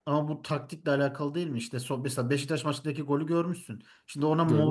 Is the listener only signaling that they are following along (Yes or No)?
Yes